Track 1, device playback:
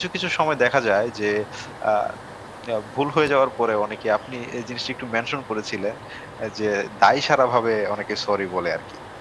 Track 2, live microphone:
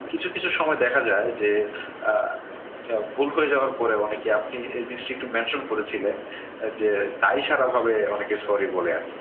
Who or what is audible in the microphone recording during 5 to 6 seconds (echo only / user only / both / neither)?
echo only